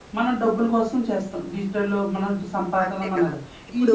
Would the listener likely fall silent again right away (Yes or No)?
No